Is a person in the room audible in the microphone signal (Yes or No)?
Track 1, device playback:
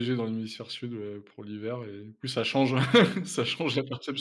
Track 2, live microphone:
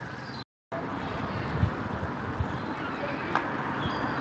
No